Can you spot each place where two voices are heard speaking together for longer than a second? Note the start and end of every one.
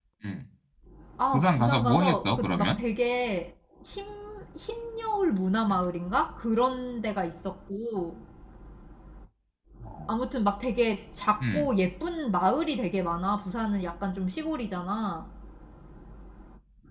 1.3-2.8

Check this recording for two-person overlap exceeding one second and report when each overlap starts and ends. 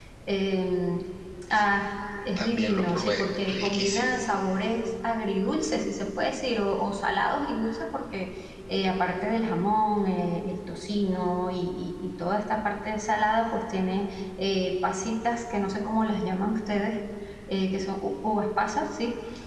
2.4-4.2

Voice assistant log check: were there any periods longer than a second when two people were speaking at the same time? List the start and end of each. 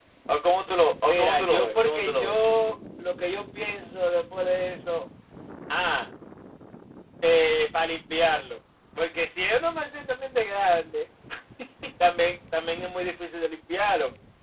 1.1-2.4

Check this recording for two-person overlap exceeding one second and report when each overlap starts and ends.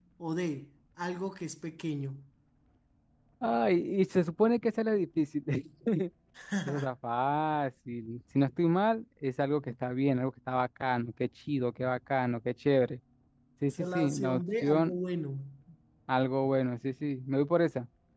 13.7-15.0

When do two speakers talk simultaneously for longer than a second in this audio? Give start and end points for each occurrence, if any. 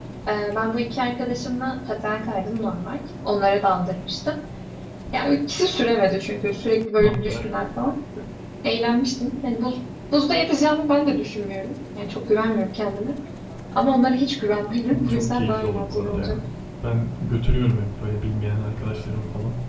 15.1-16.4

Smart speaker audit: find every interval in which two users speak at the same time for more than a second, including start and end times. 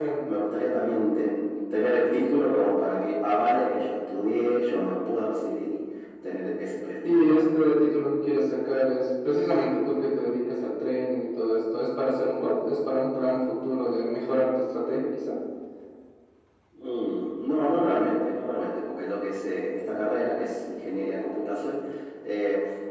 none

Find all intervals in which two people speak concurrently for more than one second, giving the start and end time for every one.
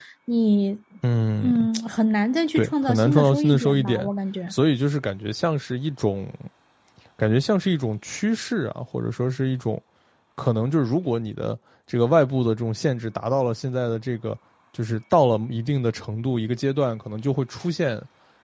2.5-4.1

